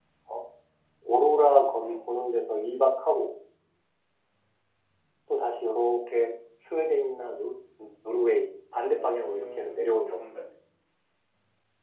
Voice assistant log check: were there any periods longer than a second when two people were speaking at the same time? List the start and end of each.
8.9-10.2

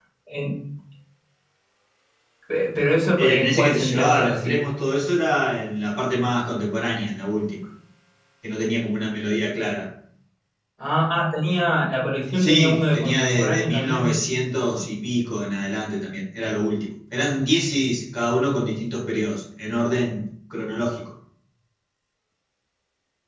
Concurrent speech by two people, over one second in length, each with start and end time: 3.2-4.6, 12.4-14.2

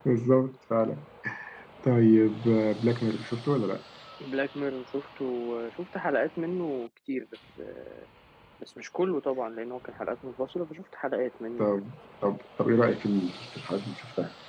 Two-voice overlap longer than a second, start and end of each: none

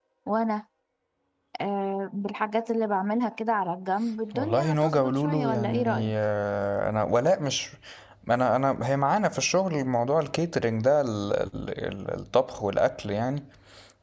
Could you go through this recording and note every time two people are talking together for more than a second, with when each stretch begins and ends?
4.3-6.1

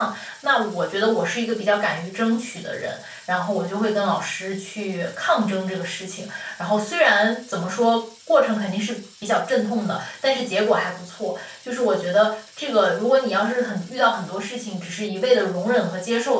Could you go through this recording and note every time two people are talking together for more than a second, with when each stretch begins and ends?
none

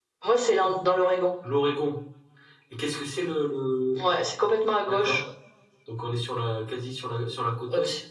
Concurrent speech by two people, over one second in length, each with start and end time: none

